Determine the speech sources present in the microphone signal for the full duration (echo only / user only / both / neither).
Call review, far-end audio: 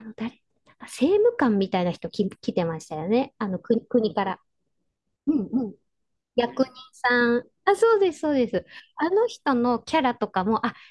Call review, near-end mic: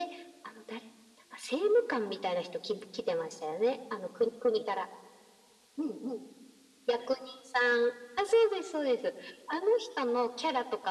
echo only